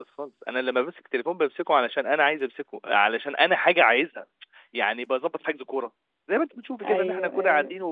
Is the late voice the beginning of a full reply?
No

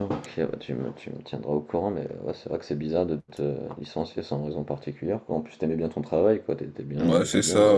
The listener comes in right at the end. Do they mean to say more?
Yes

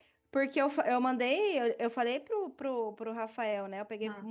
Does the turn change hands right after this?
No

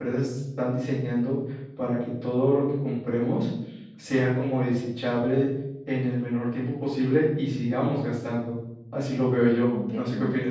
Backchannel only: No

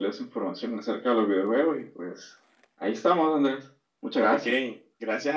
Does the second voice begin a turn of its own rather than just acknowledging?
Yes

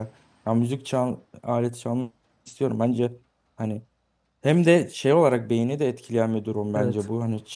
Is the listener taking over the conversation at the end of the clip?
No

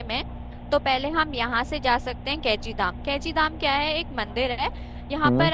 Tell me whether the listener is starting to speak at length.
No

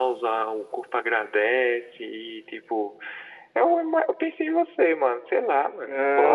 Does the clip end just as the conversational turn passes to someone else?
Yes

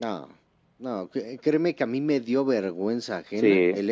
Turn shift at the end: No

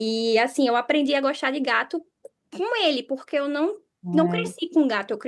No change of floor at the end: Yes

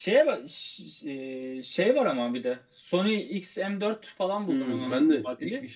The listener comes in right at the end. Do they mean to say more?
Yes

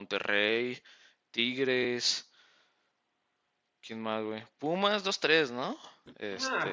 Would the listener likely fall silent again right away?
No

